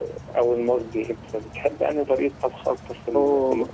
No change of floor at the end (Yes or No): Yes